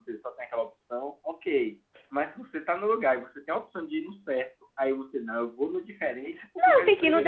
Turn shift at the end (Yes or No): Yes